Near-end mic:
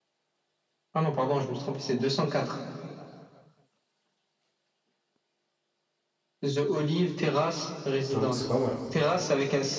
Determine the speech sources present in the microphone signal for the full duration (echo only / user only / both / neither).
both